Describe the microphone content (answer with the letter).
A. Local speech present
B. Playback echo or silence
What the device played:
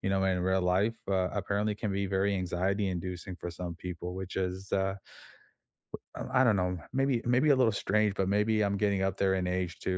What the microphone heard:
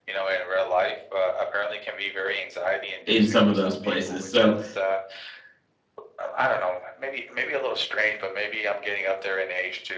A